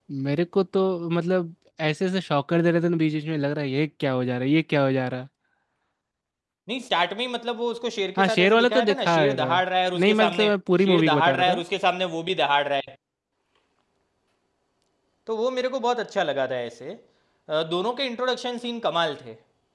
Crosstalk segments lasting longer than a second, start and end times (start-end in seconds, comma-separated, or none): 8.2-9.6, 10.0-11.6